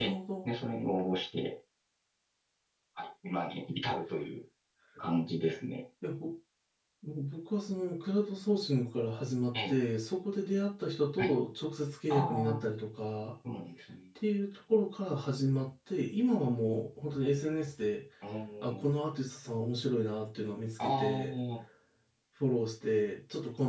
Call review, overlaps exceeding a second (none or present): none